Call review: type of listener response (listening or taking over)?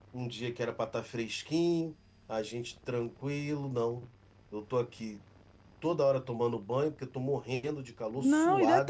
taking over